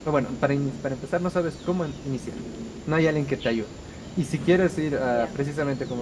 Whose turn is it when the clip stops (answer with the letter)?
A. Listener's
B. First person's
B